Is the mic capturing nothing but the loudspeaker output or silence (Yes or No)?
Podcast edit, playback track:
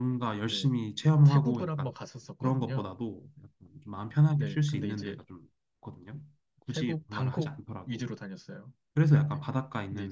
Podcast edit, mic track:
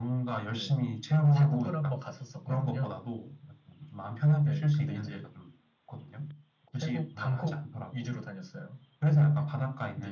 Yes